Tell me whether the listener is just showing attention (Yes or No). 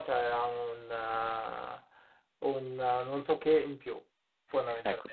No